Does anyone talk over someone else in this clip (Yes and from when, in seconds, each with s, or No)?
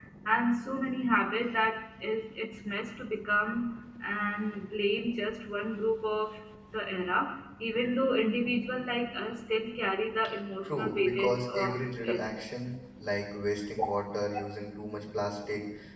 Yes, from 10.6 s